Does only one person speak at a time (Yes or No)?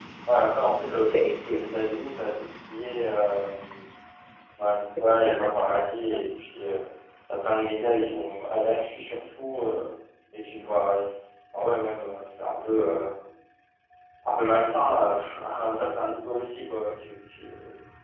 No